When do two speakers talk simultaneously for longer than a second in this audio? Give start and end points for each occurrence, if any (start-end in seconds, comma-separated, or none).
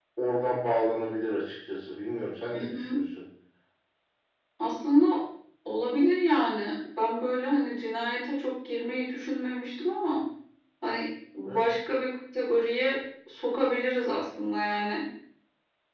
none